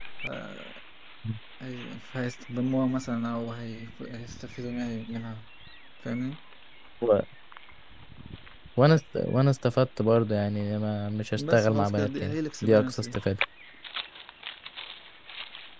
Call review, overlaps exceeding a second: present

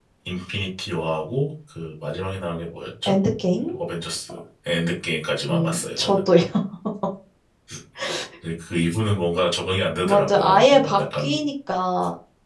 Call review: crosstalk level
present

